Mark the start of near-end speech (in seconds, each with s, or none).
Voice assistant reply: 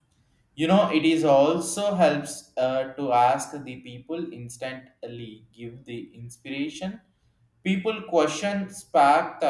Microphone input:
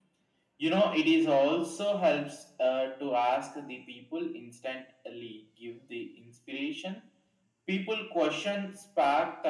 none